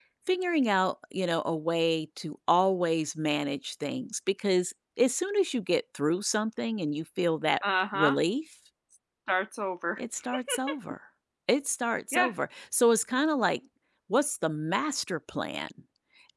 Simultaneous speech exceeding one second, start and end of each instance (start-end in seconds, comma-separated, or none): none